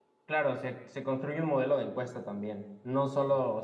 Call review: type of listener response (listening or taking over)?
listening